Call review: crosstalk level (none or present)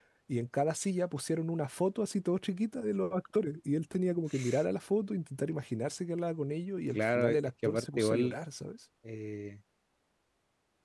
present